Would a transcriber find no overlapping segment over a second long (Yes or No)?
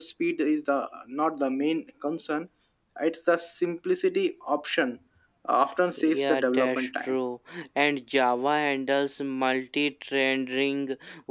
No